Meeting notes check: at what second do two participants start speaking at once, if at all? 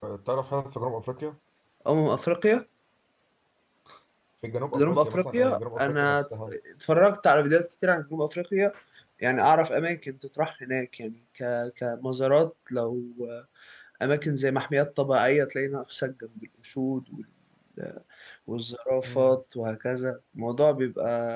4.7 s

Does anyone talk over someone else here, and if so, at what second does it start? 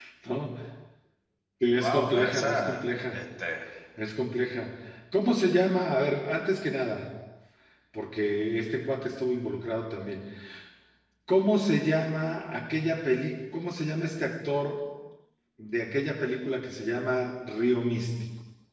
1.8 s

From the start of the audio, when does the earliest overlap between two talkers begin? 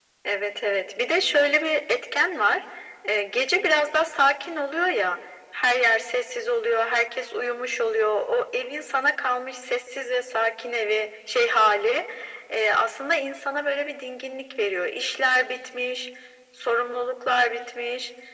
none

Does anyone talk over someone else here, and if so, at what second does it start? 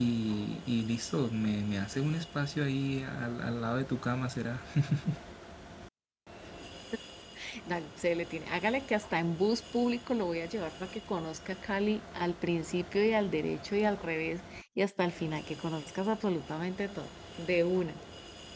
none

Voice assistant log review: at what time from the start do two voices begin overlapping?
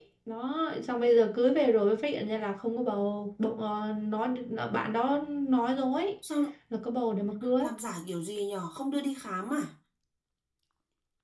none

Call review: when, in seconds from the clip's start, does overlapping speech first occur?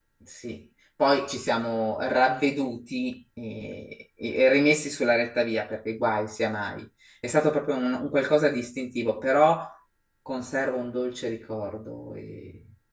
none

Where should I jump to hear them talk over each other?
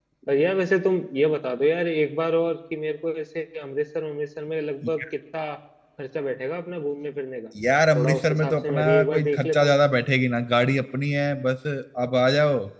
8.0 s

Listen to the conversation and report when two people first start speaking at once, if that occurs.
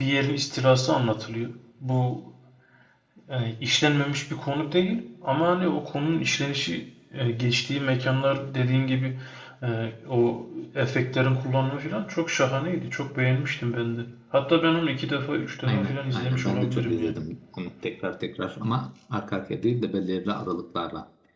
15.7 s

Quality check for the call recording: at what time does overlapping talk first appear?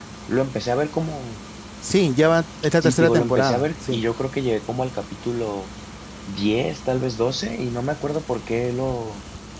2.8 s

